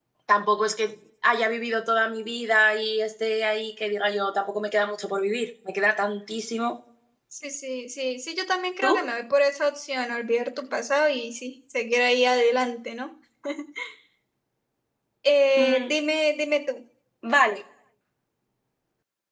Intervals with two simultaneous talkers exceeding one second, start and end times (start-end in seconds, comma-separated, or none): none